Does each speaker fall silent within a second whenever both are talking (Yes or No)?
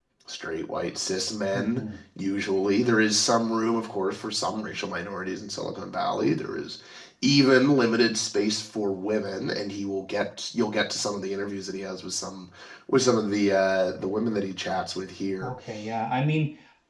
Yes